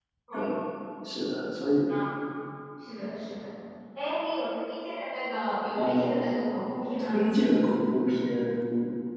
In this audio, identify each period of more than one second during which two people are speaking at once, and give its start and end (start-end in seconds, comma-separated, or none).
none